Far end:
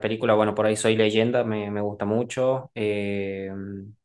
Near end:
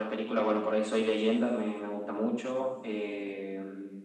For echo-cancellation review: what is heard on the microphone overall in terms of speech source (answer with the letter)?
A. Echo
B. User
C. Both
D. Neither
A